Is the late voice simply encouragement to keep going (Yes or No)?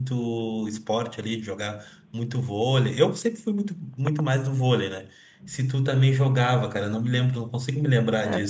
No